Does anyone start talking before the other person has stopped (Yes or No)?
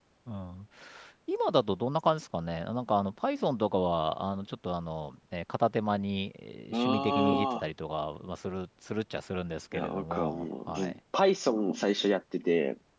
Yes